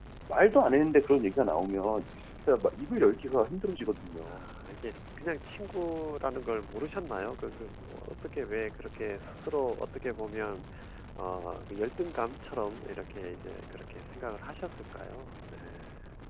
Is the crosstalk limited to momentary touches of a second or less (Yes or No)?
Yes